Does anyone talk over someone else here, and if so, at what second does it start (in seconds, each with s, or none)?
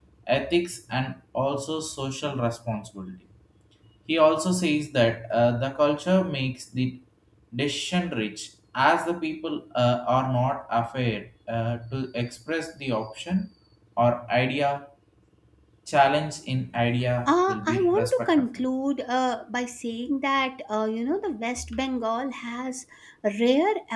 17.3 s